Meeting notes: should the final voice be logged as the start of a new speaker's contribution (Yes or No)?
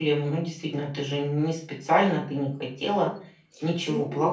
Yes